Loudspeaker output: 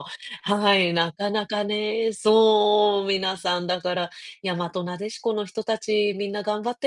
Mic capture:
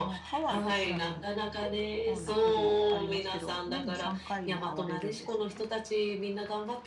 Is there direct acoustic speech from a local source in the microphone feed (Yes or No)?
Yes